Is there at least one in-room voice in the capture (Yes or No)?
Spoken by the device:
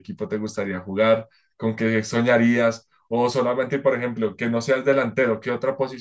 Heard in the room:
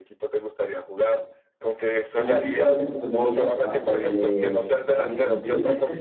Yes